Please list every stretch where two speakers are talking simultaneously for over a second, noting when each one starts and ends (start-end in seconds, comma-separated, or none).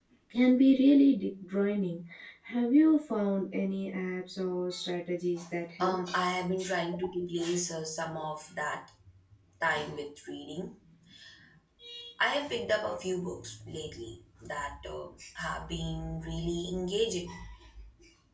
none